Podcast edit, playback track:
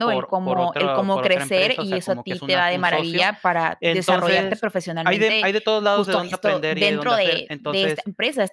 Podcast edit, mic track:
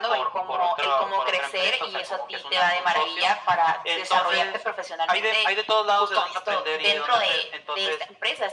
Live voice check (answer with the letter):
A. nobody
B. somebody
A